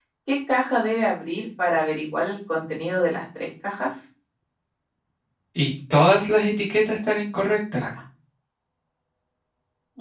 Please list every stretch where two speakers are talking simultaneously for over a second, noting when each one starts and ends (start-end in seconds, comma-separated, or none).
none